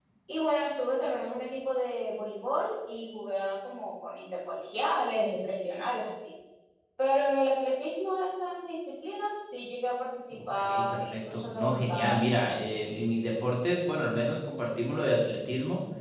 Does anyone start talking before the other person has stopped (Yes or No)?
Yes